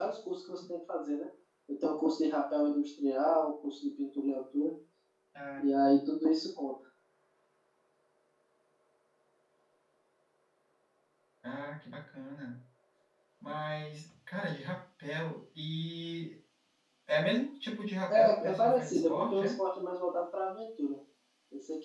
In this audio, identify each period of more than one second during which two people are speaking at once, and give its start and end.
18.1-19.5

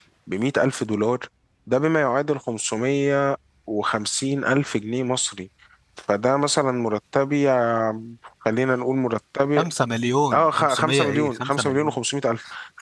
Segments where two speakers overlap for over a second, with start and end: 10.3-12.0

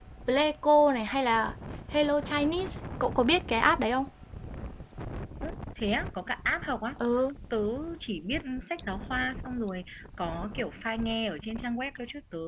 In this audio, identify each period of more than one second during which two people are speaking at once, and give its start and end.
none

